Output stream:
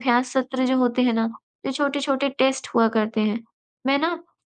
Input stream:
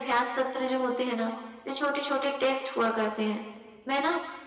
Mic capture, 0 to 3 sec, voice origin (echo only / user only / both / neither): echo only